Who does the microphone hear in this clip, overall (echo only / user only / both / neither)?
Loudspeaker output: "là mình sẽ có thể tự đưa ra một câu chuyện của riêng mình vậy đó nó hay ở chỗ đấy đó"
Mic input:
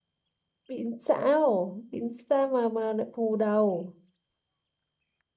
user only